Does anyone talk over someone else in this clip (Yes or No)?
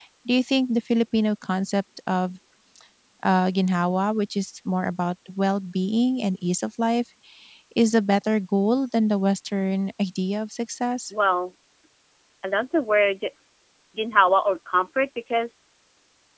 No